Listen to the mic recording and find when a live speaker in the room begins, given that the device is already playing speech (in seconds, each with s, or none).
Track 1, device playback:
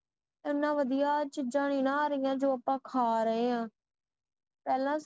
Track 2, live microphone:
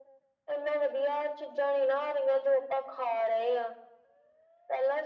none